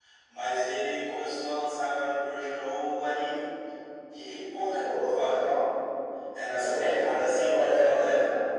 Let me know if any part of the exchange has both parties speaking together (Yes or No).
Yes